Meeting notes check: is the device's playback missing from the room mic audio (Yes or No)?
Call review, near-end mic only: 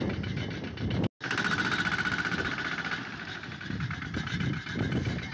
Yes